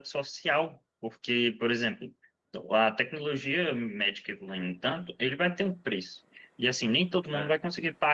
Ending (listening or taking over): listening